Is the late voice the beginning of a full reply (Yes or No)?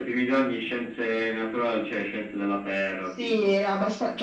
Yes